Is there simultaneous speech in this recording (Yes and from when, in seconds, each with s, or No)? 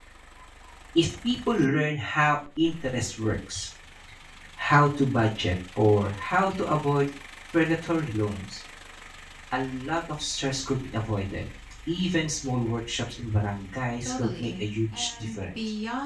Yes, from 14.0 s